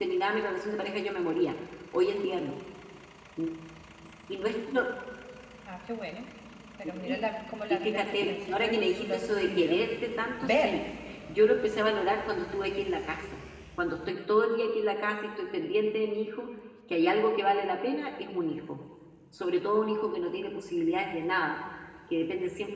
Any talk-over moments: Yes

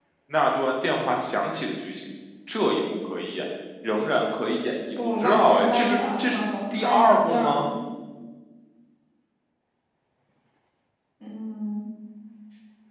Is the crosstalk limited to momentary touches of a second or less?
No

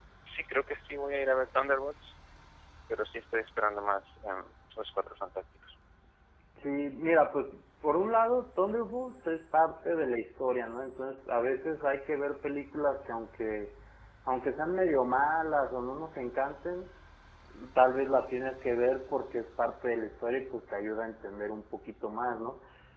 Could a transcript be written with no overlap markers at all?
Yes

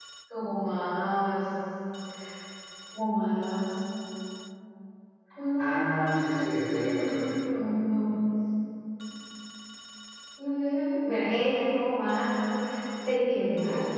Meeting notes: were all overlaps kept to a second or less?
No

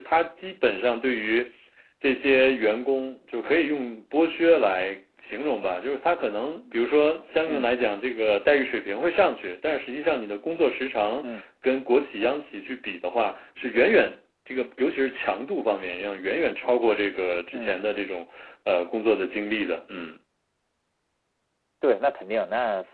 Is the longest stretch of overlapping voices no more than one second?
Yes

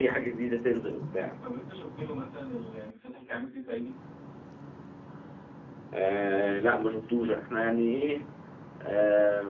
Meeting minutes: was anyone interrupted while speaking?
No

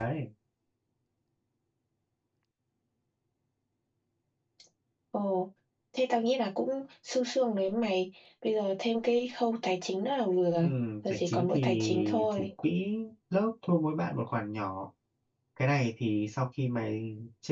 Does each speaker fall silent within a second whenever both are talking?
No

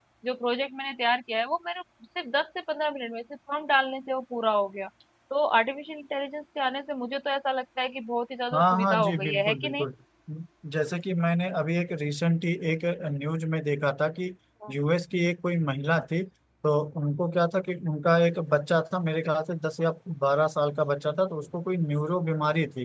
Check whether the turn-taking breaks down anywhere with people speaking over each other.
Yes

